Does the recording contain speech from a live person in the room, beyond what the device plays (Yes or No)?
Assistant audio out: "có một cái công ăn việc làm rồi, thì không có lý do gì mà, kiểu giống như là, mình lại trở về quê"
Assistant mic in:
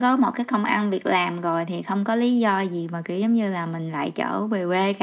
No